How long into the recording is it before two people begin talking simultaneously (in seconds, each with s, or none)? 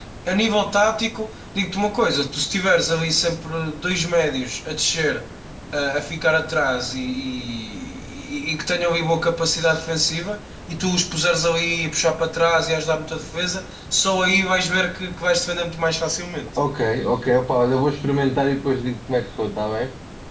none